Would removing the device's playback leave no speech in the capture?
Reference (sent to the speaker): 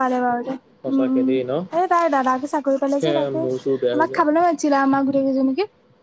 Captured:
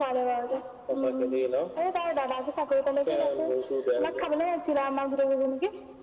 Yes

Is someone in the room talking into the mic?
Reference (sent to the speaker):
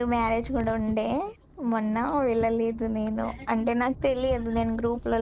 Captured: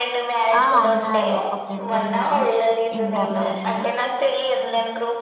Yes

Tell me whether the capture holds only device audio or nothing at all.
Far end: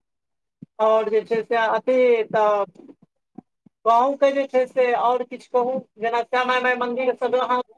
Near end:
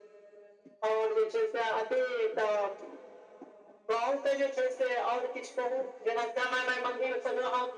Yes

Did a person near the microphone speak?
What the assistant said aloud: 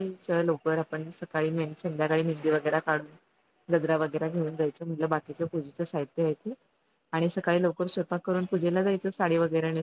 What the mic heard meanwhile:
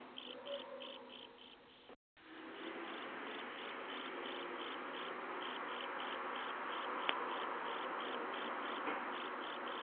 No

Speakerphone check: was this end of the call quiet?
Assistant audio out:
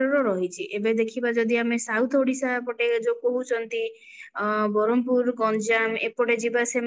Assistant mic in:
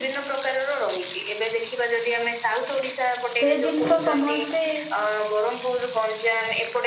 No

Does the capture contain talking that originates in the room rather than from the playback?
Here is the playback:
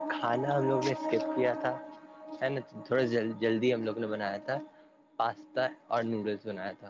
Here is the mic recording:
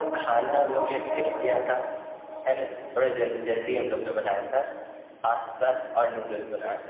No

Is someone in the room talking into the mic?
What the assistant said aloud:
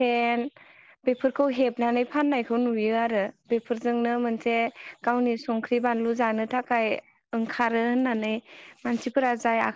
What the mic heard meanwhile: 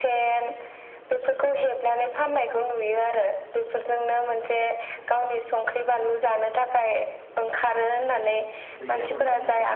Yes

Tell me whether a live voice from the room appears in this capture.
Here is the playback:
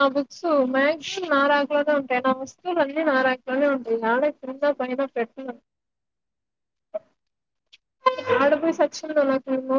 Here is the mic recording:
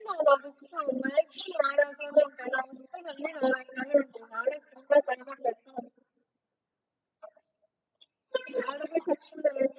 No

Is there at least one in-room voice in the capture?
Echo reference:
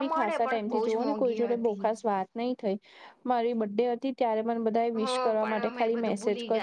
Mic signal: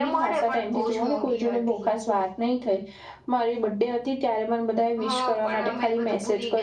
No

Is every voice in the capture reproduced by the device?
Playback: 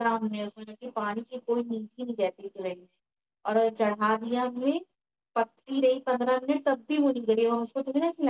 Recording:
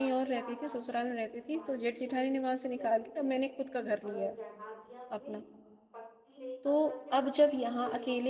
No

